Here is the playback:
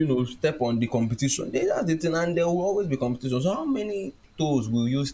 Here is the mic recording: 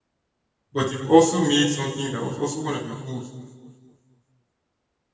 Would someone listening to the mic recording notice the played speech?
No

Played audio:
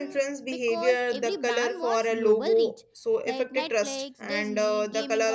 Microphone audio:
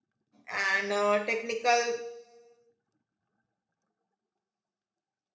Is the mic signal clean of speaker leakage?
Yes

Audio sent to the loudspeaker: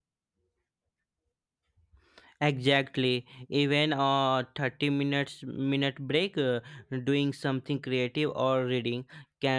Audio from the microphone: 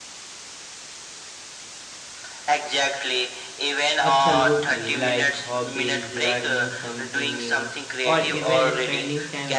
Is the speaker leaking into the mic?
Yes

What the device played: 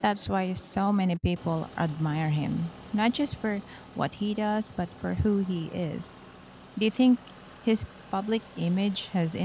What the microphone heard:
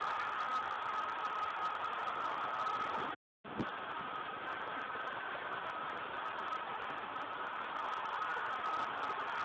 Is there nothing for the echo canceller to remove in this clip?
Yes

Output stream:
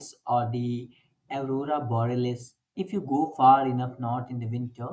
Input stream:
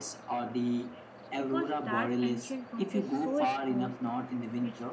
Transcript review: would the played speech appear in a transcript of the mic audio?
Yes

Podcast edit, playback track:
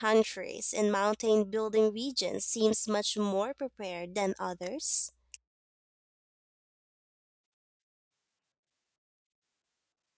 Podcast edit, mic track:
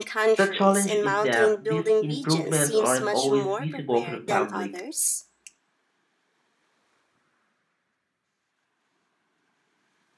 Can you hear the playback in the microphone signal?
Yes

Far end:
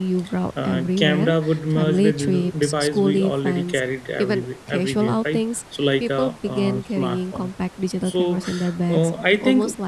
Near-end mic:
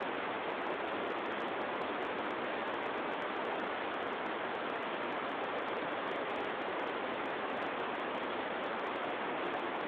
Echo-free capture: Yes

